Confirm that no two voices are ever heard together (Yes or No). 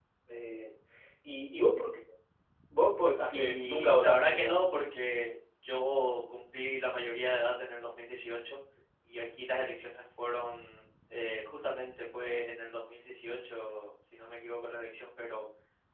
No